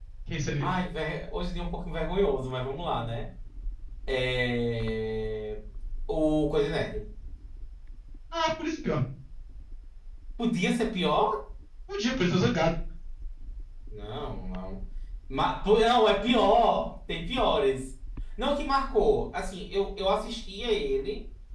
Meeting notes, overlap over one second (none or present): none